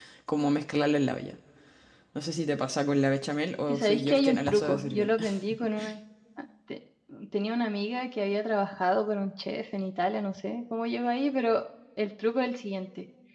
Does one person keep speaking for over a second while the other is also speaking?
Yes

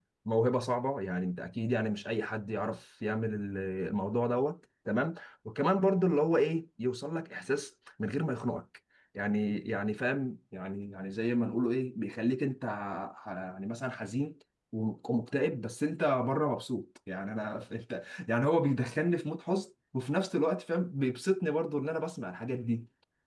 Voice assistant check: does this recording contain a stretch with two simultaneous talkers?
No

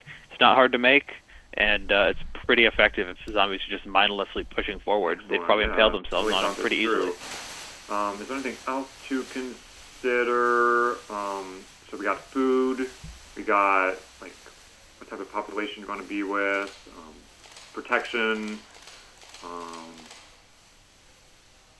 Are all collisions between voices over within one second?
No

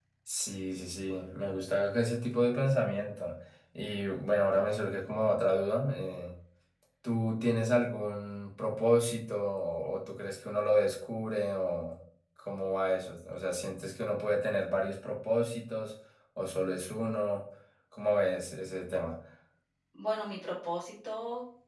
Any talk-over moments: No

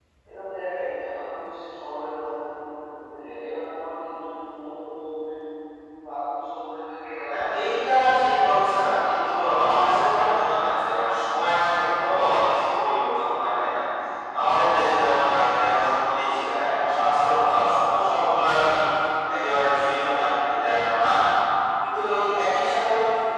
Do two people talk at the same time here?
Yes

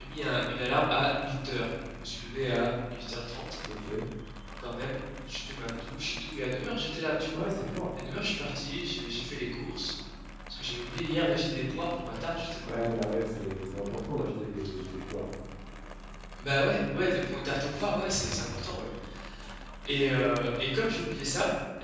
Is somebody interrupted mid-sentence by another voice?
No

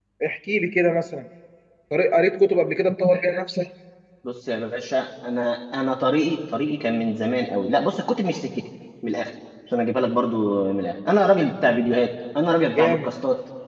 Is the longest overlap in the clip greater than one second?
No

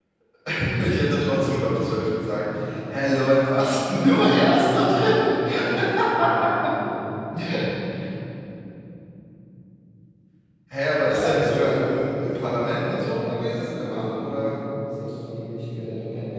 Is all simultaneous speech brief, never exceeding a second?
No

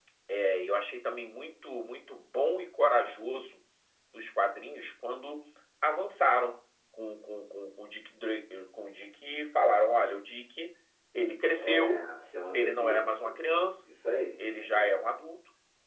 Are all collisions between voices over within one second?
Yes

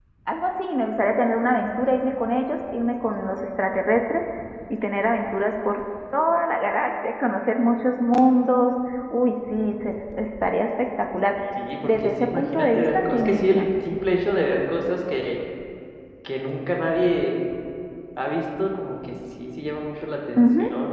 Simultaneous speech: Yes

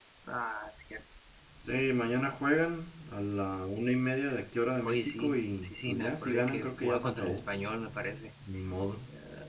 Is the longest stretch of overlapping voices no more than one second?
No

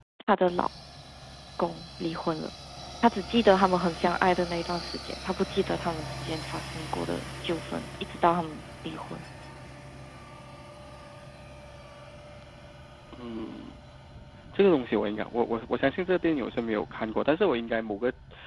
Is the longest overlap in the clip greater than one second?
No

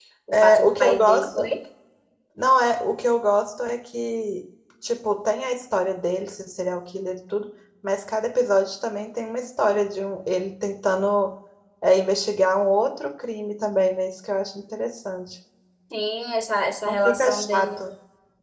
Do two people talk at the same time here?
Yes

